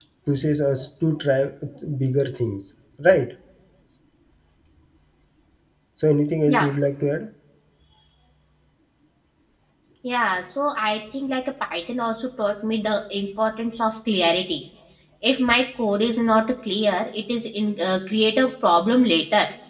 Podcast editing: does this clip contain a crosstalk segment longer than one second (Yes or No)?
No